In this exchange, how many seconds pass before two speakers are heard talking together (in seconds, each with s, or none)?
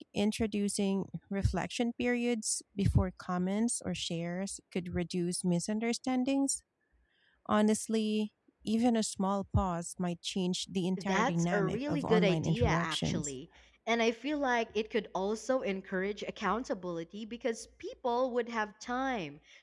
11.0 s